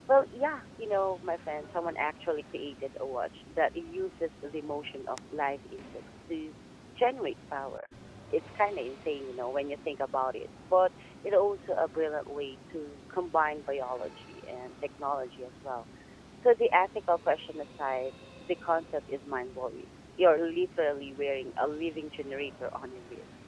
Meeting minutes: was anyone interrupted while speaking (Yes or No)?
No